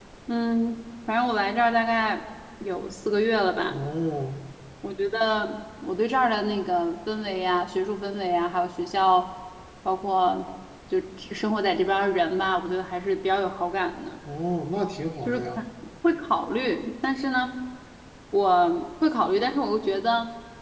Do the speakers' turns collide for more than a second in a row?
No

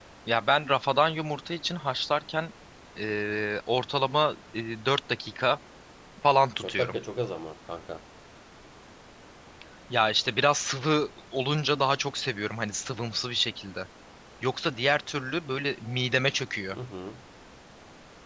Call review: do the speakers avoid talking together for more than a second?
Yes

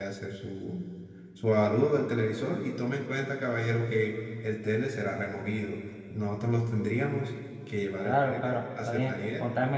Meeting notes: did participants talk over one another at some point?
Yes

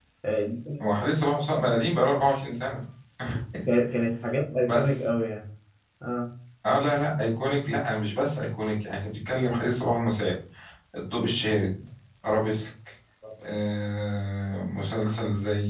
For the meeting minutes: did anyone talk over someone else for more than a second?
No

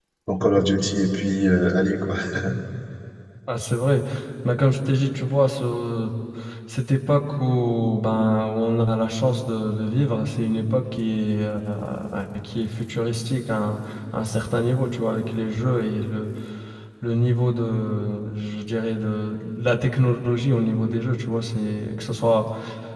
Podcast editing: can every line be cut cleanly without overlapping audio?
Yes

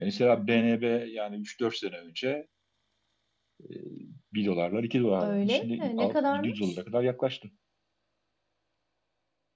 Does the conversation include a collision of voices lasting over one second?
Yes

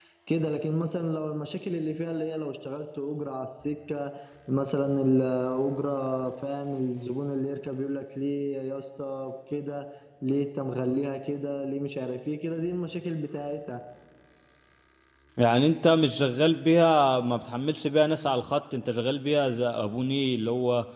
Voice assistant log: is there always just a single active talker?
Yes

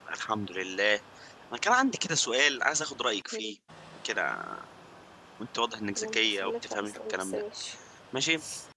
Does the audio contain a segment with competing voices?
Yes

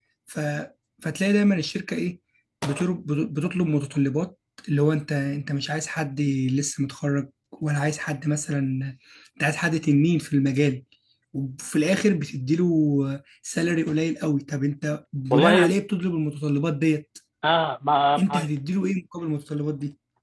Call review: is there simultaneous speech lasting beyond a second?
No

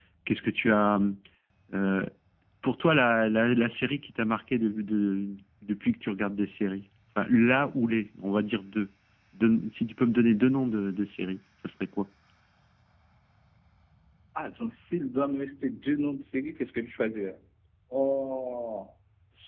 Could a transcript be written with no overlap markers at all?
Yes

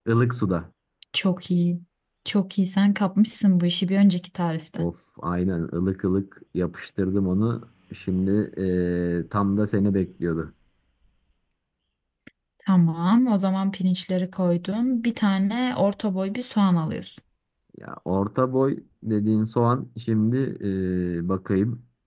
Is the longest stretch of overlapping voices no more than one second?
Yes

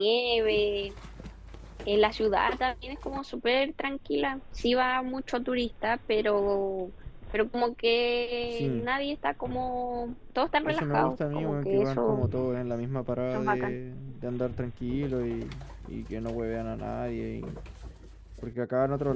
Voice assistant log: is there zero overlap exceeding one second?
No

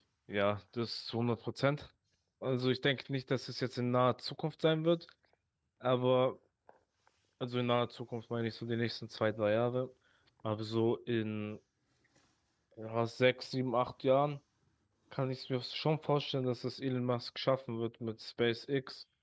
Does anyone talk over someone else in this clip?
No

